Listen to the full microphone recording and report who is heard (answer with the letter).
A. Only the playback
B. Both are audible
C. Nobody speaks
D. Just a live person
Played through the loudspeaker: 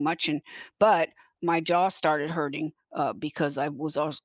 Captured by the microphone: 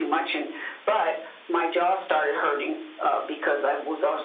A